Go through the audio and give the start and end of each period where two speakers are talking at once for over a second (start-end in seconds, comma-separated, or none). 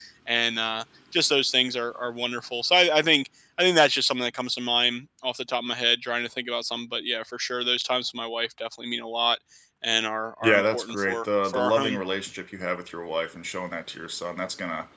10.4-12.0